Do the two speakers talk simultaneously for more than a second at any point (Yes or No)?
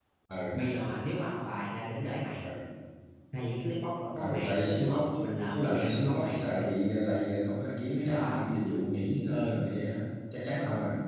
Yes